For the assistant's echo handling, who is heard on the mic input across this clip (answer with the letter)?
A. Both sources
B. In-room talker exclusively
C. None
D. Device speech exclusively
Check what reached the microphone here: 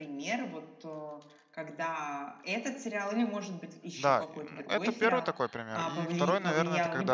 A